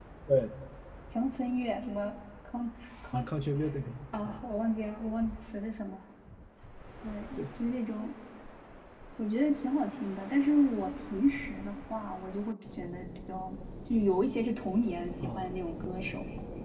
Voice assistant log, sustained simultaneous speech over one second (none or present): none